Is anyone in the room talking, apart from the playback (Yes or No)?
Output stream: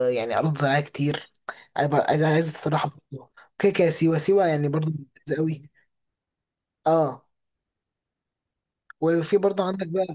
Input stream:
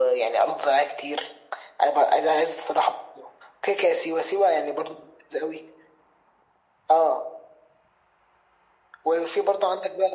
No